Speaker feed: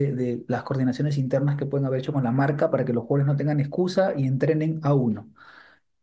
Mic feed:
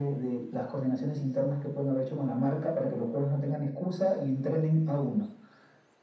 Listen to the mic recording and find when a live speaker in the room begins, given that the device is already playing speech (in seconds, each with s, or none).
none